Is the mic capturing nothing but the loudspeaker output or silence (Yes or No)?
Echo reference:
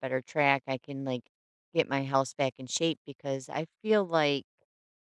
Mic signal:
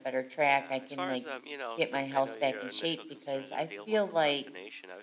No